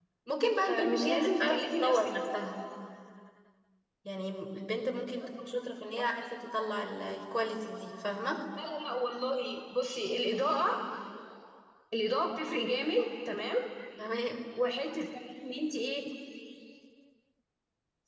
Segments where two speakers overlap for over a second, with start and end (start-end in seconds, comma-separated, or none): 0.6-2.1